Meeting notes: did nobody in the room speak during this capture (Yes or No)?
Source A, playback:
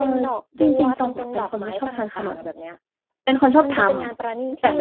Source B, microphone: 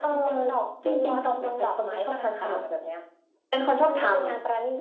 Yes